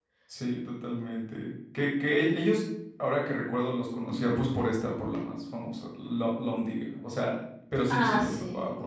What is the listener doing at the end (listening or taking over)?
taking over